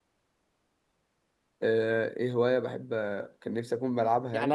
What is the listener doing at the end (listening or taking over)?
taking over